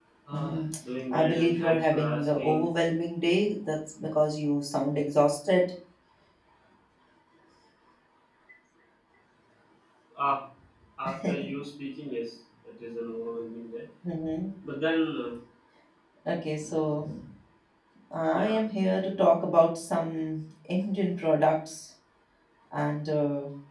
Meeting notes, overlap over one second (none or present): present